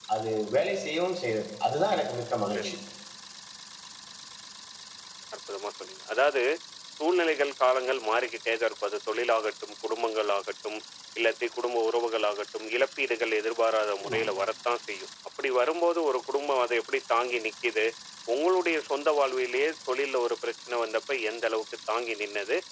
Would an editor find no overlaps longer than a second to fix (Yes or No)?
Yes